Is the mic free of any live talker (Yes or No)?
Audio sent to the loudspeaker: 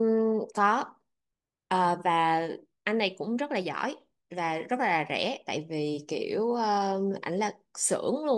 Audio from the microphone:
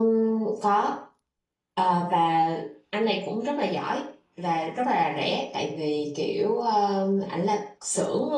Yes